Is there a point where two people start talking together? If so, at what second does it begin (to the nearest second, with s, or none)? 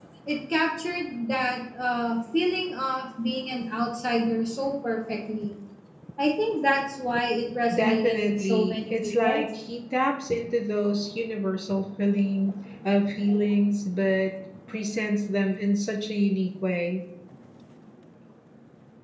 8 s